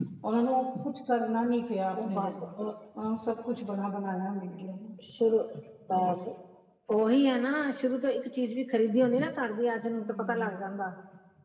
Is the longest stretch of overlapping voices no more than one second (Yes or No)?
Yes